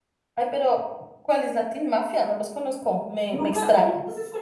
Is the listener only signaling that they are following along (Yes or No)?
No